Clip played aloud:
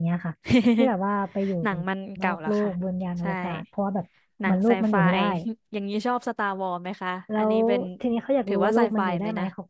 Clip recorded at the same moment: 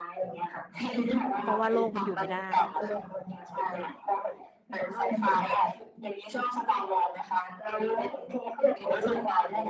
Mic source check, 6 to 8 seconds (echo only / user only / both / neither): echo only